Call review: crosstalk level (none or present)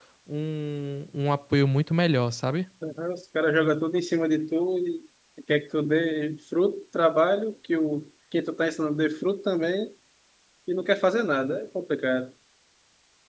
none